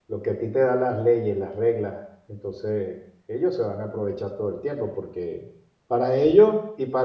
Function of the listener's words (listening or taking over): listening